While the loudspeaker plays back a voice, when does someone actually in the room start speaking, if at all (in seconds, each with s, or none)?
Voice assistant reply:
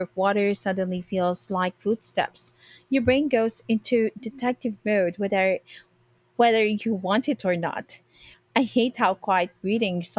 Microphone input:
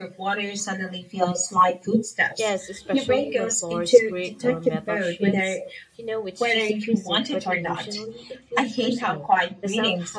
2.3 s